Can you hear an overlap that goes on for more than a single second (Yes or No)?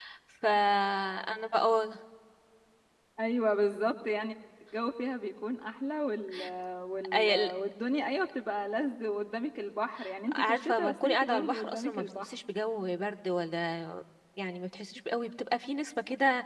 Yes